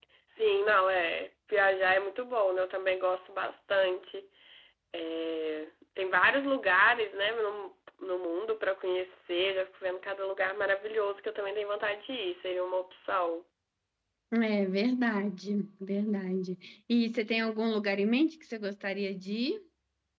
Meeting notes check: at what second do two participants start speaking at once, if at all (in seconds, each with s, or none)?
none